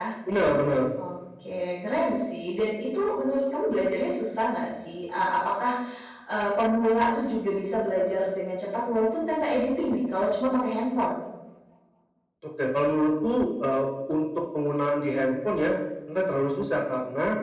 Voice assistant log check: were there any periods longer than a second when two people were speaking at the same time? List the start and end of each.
none

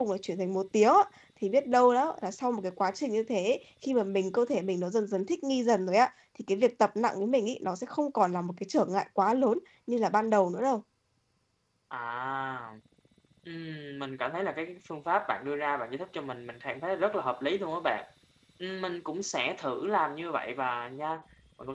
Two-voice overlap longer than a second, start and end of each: none

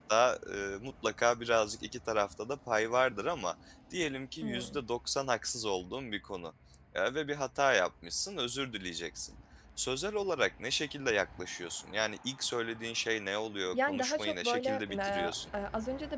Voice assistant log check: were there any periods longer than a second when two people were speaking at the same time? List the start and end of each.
13.7-15.3

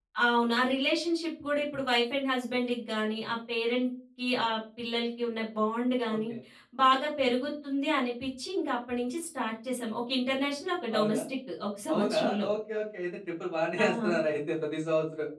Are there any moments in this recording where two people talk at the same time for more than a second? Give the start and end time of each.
none

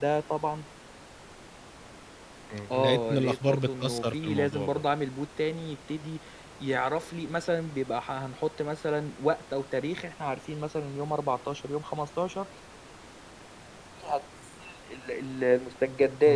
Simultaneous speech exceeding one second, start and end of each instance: 2.7-4.8

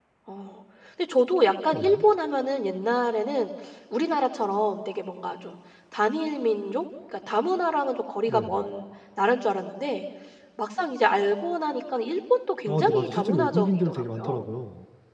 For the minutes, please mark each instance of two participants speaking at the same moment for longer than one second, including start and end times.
12.7-14.4

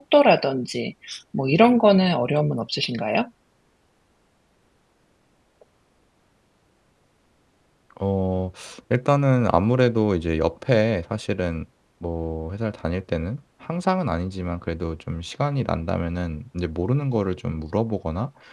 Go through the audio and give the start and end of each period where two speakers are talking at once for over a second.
none

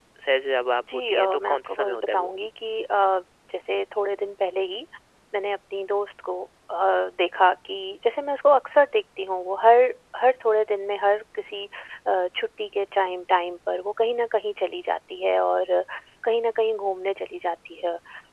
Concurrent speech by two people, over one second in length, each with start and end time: 1.1-2.3

